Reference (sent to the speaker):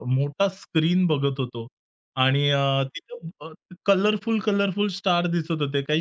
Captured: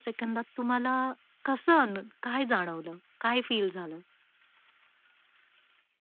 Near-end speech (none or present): present